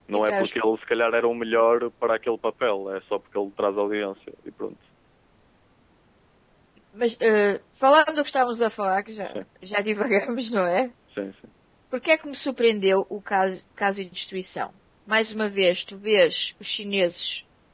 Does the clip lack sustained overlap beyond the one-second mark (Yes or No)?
Yes